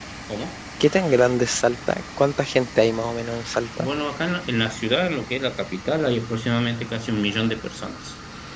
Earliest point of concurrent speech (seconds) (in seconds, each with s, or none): none